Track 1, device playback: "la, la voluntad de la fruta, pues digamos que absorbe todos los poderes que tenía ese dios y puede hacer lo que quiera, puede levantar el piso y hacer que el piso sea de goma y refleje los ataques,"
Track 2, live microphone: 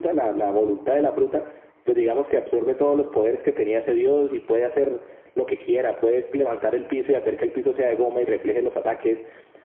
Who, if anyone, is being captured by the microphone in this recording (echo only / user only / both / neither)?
echo only